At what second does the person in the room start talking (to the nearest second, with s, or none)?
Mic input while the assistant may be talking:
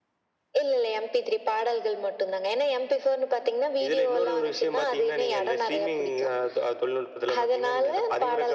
none